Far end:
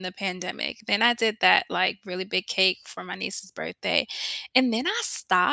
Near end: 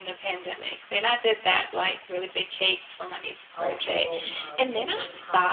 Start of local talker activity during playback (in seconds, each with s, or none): 3.5 s